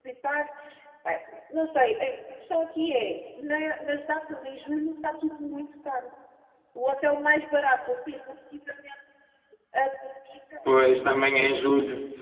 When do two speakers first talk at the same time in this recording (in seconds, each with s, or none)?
none